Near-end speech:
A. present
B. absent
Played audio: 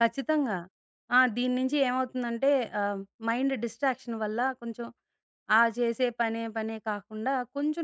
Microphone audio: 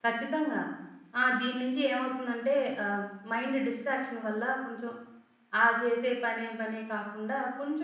B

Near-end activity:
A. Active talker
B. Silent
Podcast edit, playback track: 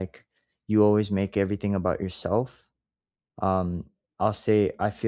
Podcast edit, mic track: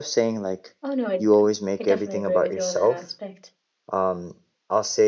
A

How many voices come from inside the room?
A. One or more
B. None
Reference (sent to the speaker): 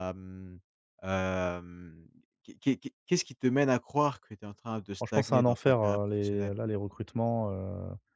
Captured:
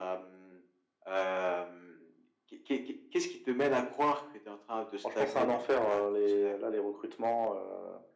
B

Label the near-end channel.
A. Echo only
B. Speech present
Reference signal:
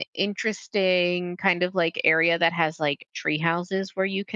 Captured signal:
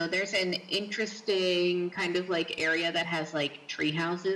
A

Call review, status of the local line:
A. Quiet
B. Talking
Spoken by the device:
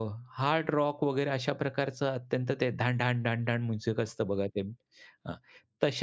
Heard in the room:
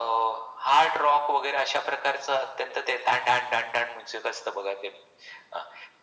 A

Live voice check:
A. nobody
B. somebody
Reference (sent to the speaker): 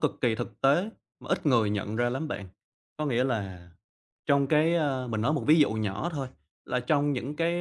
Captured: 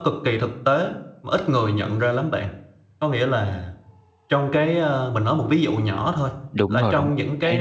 B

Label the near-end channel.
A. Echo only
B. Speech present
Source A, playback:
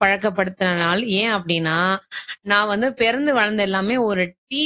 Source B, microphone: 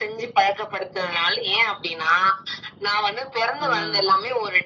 B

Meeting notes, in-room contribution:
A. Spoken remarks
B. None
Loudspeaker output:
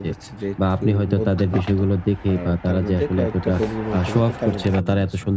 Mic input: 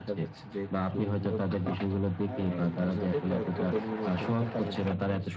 A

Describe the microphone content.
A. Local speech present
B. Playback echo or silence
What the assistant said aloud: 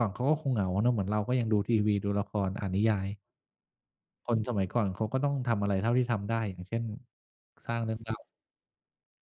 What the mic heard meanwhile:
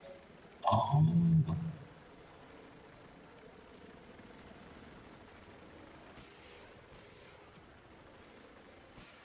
A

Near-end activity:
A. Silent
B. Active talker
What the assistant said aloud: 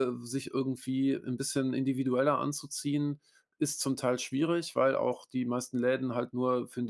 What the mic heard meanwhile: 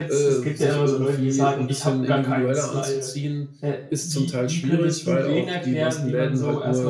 B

